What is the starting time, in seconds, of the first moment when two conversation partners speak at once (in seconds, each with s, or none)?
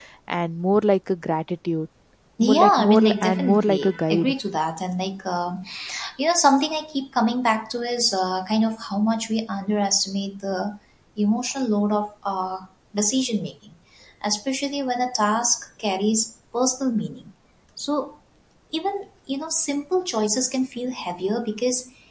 2.4 s